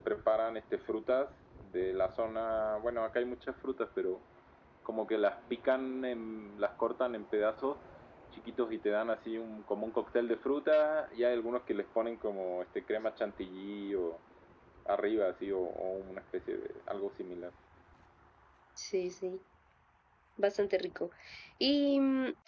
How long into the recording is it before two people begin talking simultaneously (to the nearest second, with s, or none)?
none